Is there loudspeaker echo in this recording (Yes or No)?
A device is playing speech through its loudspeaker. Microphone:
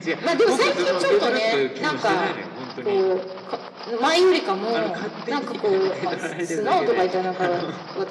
Yes